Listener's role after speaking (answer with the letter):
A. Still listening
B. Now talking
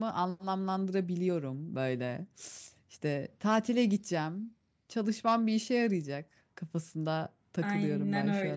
B